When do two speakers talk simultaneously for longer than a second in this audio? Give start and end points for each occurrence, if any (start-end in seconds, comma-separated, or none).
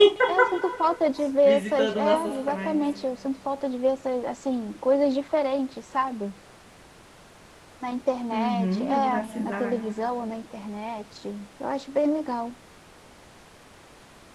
1.4-2.8, 8.3-9.8